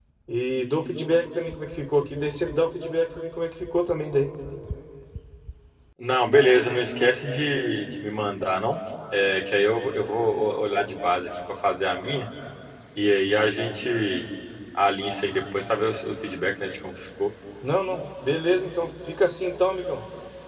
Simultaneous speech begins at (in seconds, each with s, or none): none